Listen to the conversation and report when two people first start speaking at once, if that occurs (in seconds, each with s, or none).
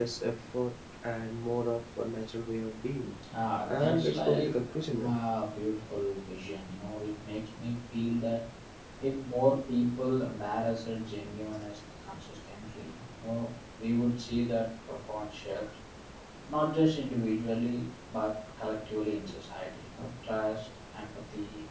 3.7 s